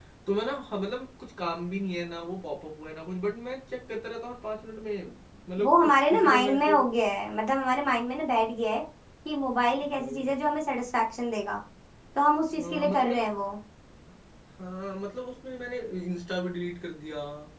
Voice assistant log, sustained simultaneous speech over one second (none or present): present